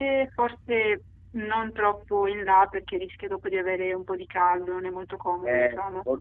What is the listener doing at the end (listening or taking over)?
taking over